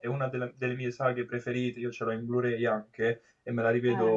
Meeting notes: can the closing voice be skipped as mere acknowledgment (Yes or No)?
Yes